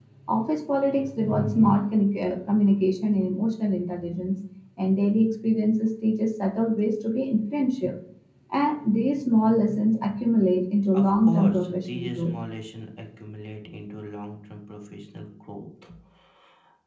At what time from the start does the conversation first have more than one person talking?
10.9 s

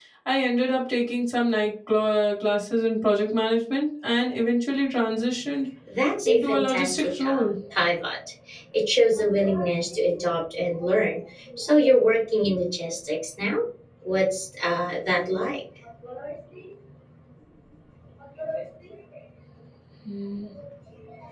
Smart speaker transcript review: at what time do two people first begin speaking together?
6.2 s

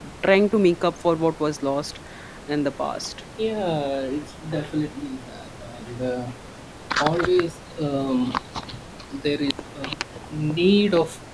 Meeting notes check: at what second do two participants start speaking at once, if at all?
none

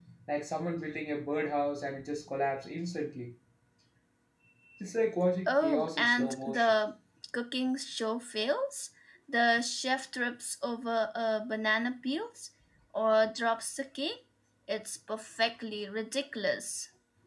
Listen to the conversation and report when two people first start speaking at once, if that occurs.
5.5 s

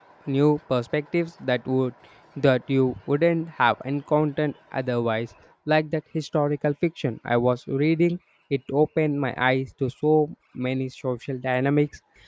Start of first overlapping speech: none

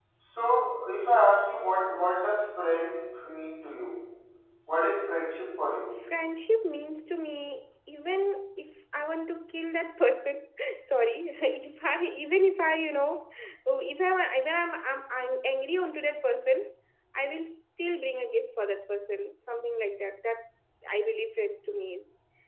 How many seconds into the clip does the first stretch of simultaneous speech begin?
none

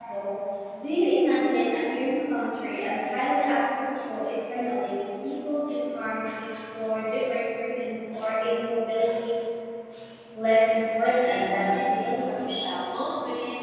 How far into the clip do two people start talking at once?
11.0 s

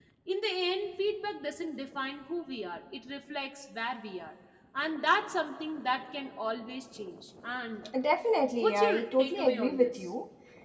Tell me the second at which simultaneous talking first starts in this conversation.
8.6 s

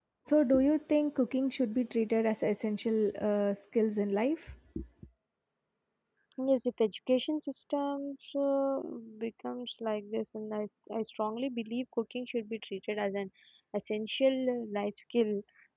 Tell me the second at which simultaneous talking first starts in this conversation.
none

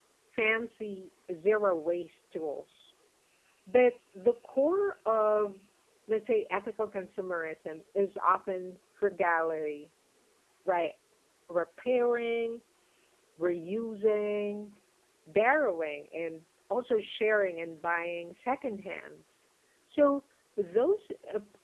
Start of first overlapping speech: none

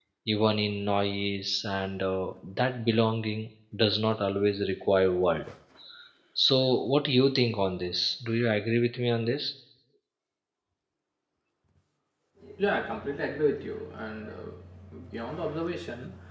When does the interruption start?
none

